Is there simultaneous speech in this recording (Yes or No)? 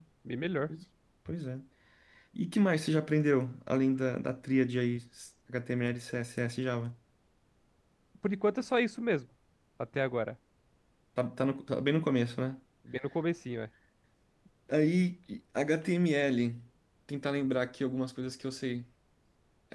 No